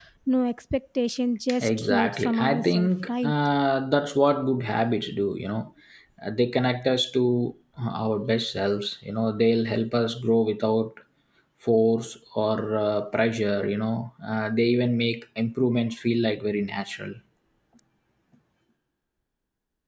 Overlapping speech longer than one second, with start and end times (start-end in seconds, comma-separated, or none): 1.6-3.3